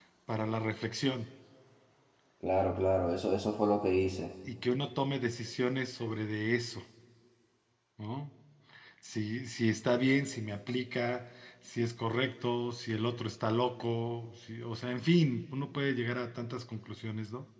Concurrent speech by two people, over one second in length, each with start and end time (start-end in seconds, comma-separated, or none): none